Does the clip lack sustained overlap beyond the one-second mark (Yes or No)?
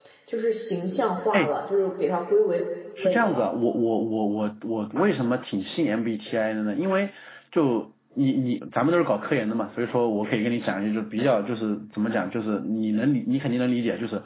Yes